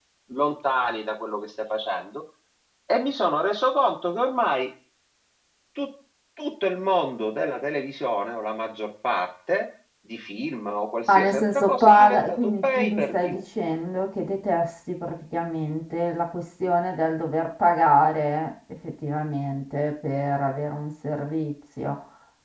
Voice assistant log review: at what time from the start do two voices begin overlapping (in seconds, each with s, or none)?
11.1 s